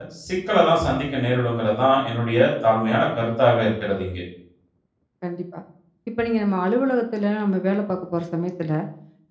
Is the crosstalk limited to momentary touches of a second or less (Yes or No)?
Yes